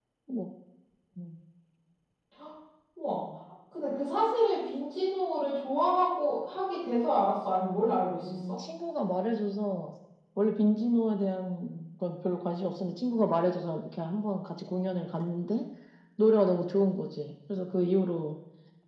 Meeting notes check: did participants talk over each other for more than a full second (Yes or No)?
No